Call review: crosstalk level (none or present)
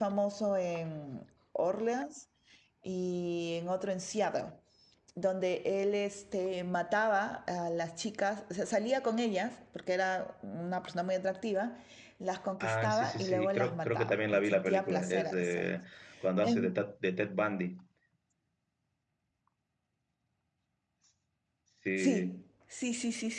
present